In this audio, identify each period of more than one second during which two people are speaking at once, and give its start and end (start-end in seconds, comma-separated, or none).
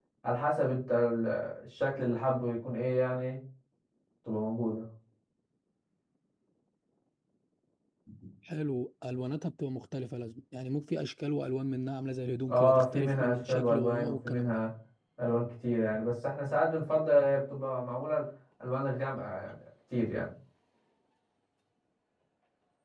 12.5-14.6